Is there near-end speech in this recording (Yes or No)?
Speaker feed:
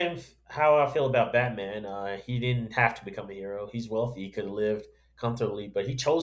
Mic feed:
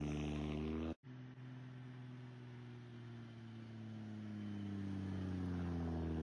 No